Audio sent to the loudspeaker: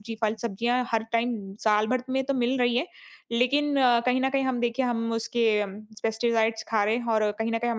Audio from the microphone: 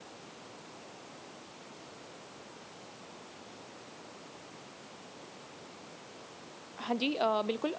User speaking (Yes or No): Yes